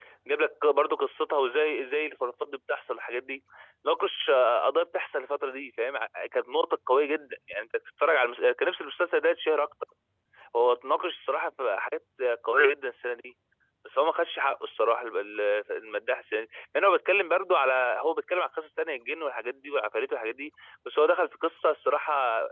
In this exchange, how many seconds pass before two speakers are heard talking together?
none

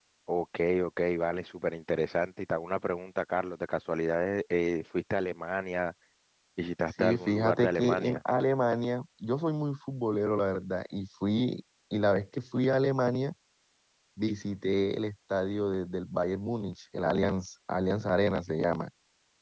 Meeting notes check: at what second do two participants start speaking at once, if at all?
6.9 s

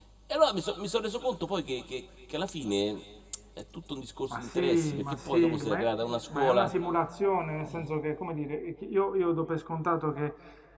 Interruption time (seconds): 4.3 s

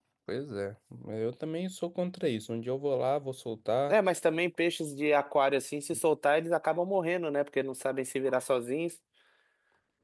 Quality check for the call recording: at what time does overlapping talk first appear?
none

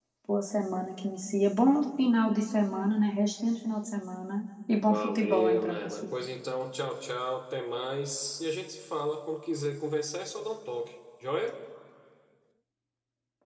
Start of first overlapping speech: 4.8 s

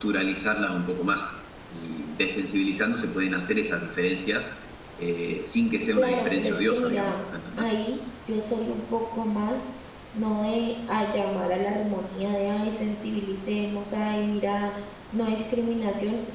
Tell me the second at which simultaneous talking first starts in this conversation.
6.0 s

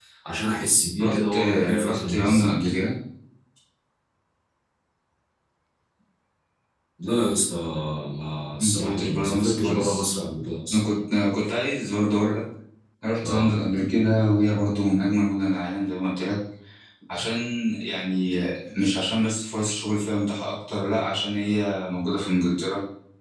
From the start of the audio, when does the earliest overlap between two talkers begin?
1.0 s

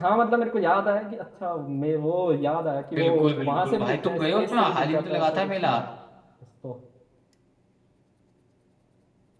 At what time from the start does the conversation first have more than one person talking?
3.0 s

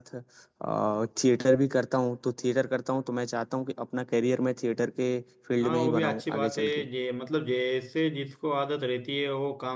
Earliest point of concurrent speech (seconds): 5.6 s

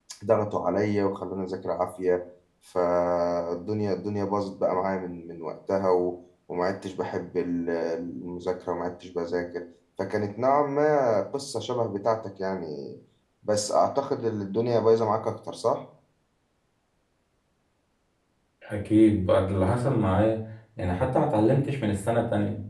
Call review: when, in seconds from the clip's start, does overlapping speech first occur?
none

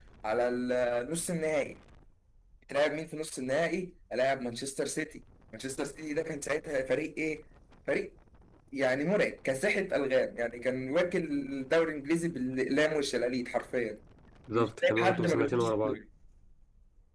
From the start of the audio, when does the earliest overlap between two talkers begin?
14.5 s

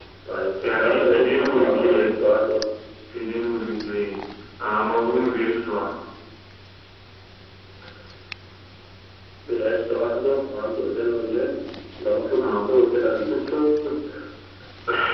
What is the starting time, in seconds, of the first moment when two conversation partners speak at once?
0.6 s

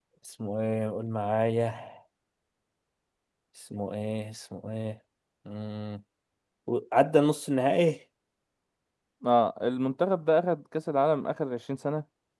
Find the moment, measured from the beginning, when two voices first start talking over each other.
none

